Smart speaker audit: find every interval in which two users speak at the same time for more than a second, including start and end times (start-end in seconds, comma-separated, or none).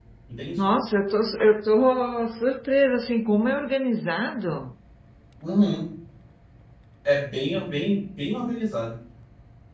none